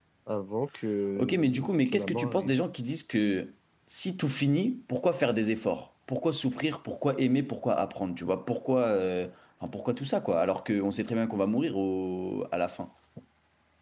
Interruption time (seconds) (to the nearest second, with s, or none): 1 s